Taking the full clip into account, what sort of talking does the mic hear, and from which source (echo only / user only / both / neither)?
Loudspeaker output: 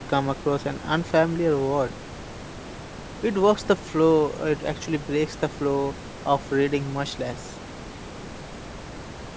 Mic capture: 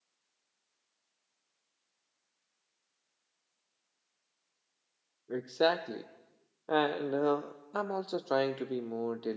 user only